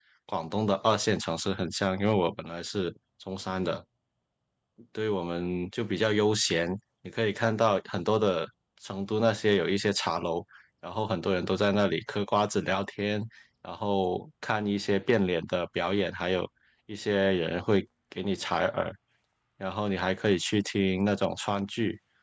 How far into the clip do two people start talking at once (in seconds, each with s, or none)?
none